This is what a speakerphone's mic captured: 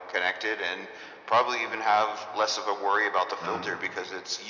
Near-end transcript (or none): Uh,